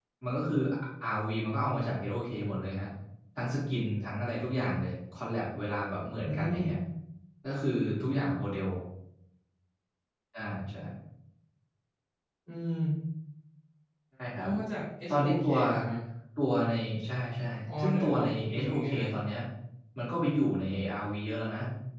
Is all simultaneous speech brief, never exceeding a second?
No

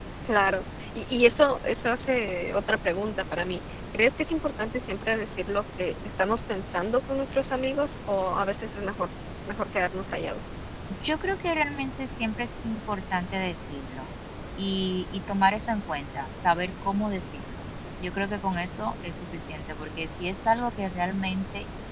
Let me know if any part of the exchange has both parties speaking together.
No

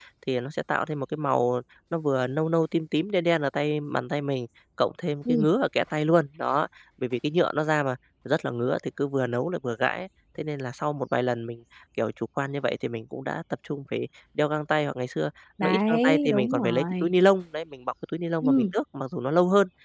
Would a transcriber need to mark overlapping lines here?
Yes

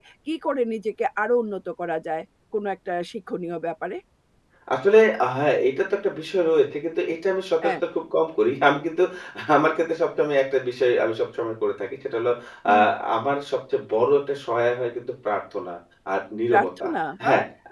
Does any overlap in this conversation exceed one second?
No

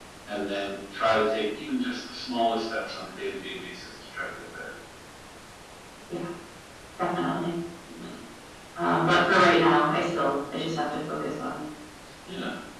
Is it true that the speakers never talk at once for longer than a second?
Yes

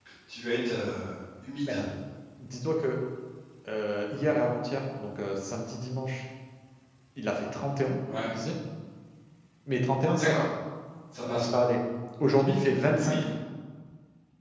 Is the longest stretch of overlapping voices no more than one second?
Yes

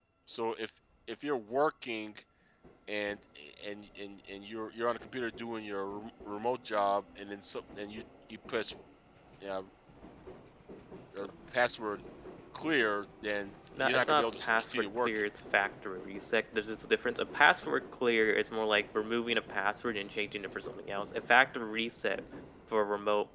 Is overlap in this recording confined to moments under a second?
No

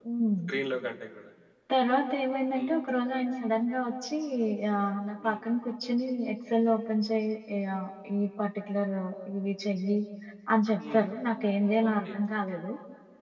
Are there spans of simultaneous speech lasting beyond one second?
No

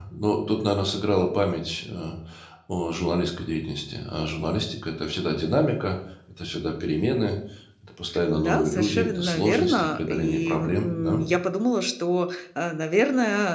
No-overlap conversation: No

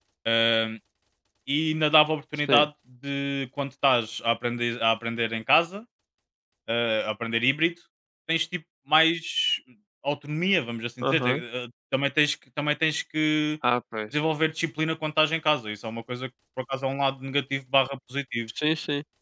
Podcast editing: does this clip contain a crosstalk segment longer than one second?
No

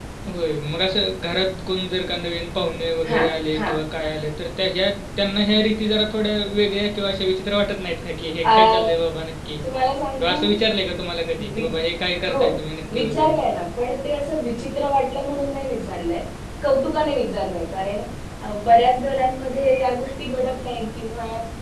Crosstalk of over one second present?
No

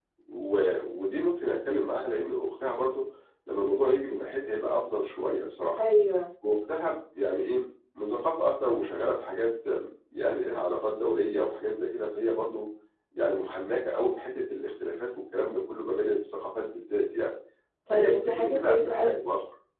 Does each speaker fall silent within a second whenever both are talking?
No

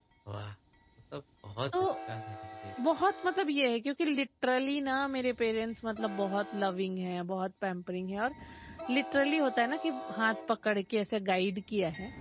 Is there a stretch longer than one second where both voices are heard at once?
No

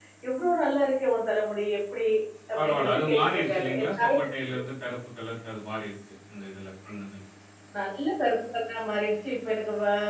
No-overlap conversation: No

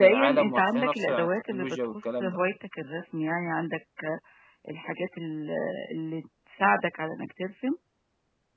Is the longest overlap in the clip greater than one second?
Yes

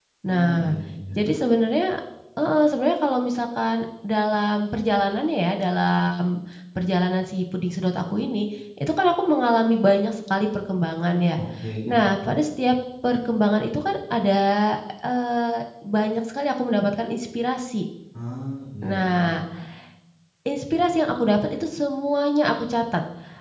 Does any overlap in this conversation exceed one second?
No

